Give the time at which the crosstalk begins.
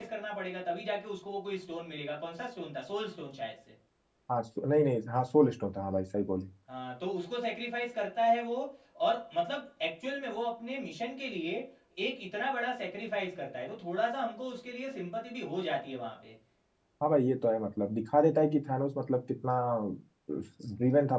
none

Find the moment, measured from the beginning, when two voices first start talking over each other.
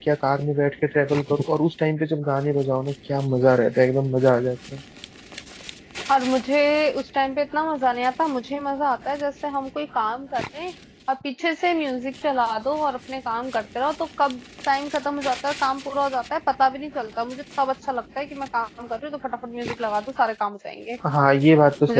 none

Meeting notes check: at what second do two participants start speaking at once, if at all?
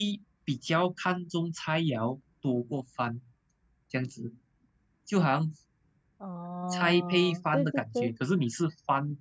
6.7 s

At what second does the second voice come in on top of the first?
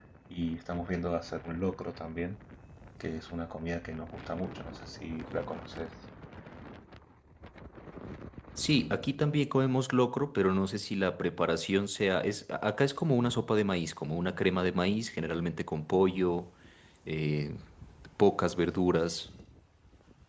none

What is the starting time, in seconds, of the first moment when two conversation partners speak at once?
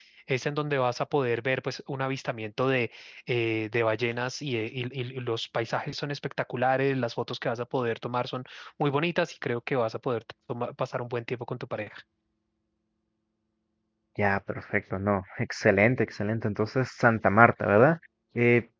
none

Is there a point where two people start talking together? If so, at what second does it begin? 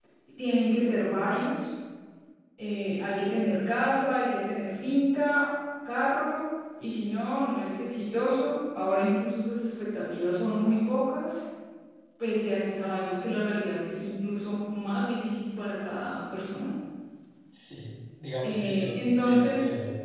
18.4 s

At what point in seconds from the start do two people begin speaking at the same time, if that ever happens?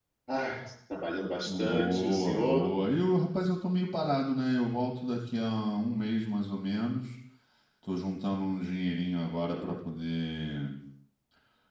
1.4 s

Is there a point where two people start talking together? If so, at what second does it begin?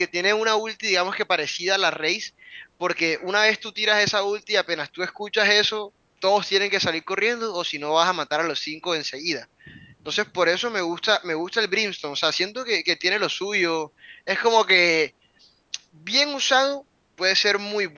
none

